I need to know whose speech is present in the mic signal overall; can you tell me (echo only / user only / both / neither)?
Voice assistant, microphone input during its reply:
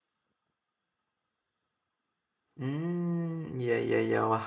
user only